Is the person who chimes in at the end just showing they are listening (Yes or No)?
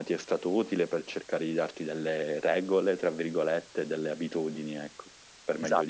No